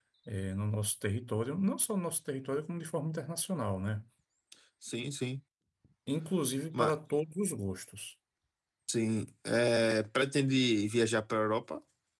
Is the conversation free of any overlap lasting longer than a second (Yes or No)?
Yes